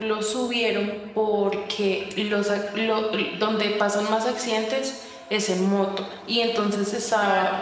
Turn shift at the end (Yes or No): No